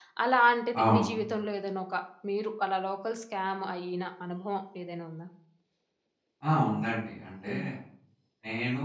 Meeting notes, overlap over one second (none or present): none